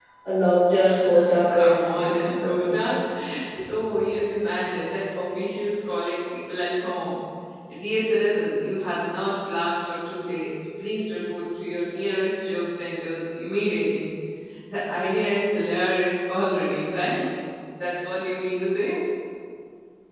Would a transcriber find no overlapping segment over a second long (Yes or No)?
No